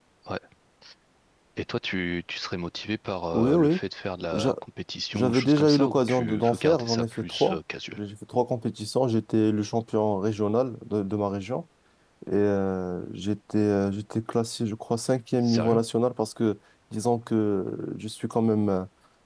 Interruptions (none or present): present